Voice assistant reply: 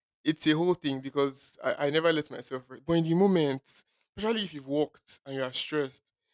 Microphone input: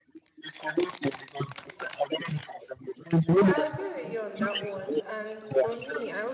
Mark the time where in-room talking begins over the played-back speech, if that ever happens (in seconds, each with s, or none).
3.3 s